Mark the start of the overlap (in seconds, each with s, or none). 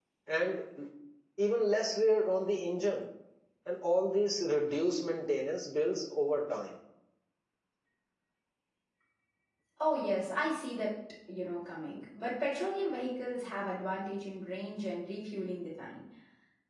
none